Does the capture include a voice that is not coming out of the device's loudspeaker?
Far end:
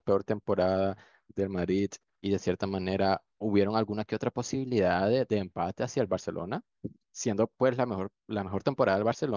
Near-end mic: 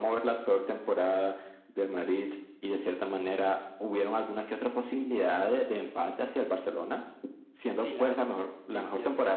Yes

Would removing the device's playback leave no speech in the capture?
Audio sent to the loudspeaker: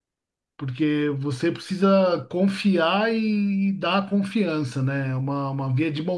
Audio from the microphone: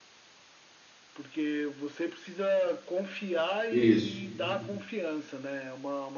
No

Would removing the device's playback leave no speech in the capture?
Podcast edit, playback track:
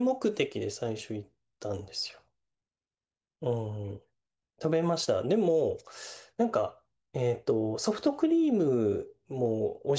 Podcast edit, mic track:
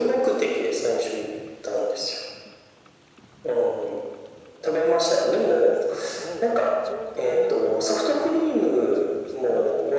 No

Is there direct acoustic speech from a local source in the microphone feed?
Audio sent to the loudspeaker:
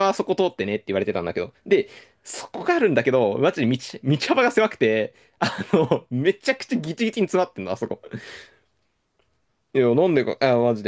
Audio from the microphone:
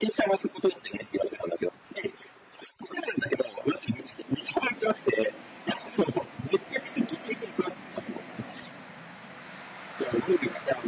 No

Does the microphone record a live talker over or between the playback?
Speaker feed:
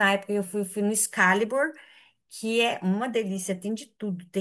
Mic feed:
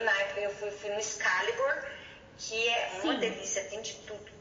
Yes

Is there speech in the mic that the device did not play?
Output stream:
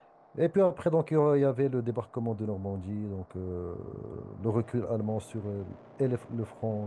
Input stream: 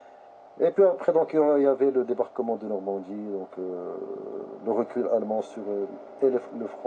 No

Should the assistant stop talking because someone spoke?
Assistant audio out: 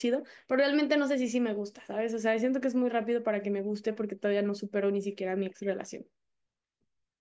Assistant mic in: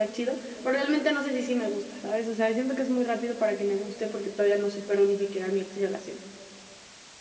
No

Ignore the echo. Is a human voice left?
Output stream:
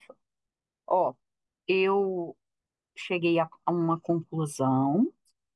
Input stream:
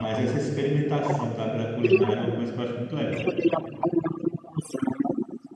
Yes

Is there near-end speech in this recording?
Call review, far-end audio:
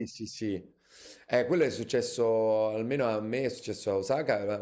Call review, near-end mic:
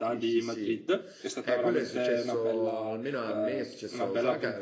Yes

